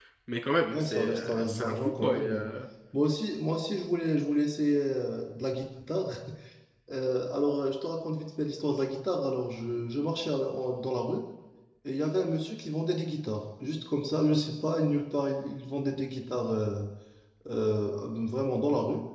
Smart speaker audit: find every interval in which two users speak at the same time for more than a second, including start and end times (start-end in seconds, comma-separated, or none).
0.7-2.5